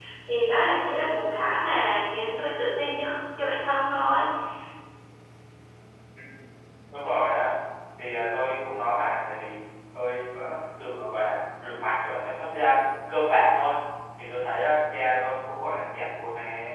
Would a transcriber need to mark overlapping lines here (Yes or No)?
No